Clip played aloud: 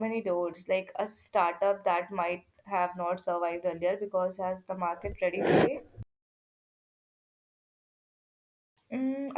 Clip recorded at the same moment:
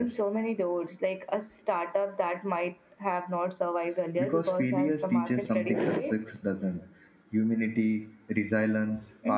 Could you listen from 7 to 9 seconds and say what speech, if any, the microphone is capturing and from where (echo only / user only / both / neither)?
user only